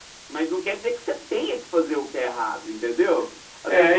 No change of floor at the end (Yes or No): Yes